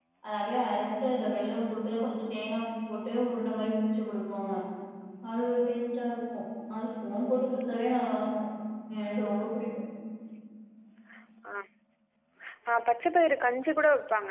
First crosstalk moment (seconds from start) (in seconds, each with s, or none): none